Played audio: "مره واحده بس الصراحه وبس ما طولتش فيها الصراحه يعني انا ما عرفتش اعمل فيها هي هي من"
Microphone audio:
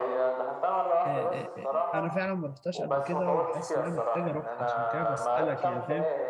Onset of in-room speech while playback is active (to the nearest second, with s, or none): 1 s